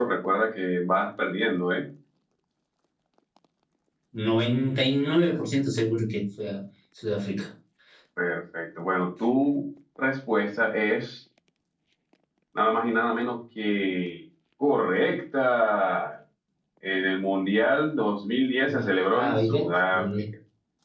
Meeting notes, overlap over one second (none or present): present